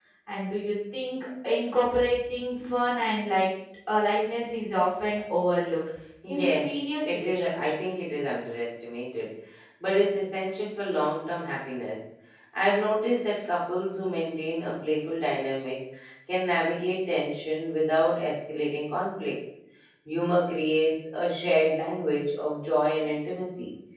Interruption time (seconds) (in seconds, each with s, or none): 6.2 s